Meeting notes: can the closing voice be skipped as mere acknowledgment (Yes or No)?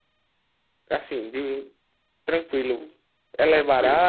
No